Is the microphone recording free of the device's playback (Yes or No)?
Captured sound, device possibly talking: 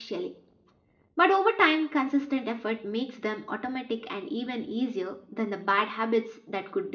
Yes